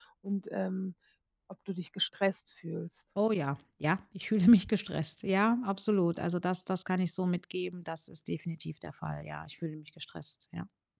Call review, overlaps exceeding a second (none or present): none